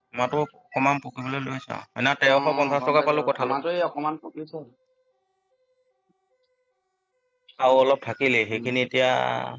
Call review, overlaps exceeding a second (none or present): present